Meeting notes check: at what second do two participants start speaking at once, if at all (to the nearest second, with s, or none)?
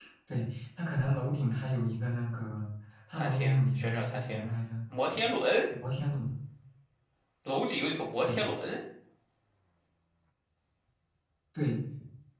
3 s